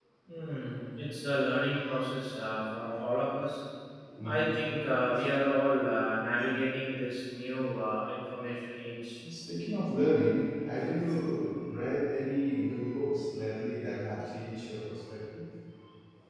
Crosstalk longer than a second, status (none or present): none